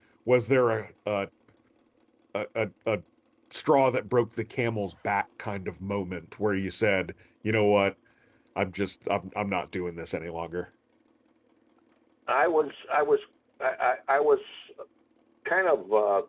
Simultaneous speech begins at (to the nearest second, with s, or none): none